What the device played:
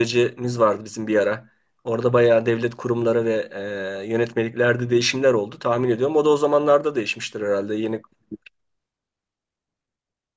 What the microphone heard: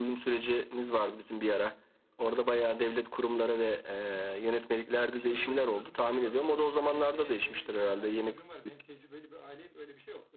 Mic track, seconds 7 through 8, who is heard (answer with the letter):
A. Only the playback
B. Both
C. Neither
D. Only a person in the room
B